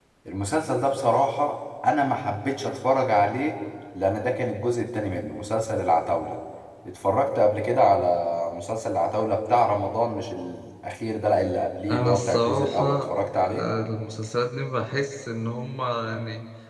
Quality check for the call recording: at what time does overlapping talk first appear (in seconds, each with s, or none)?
11.9 s